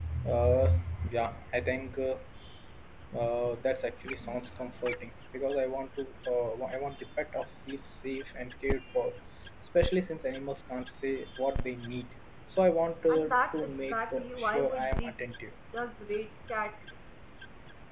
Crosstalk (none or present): present